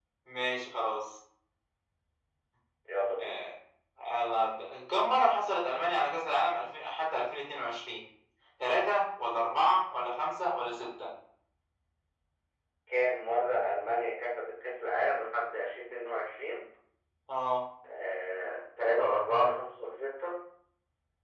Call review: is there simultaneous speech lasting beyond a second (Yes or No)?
No